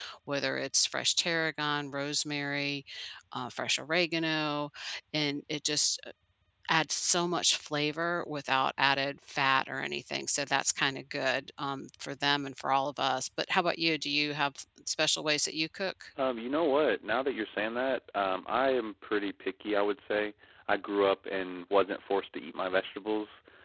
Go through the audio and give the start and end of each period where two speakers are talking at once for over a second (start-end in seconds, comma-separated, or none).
none